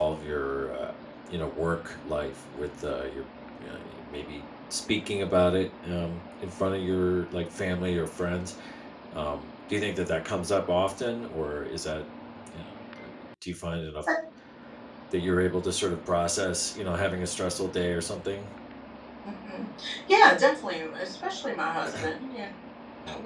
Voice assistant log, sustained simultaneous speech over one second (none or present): none